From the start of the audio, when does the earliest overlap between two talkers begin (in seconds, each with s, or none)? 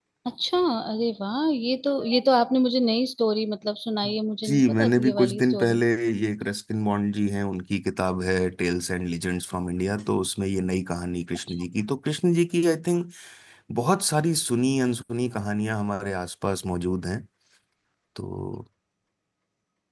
4.5 s